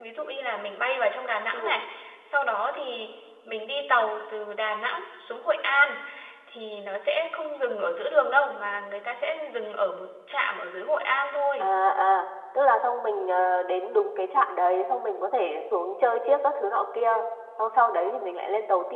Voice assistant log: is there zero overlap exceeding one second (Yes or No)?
Yes